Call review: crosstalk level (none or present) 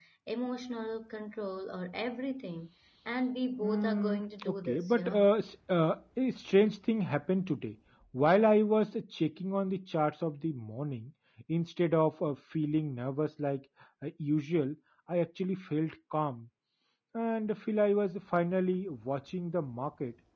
present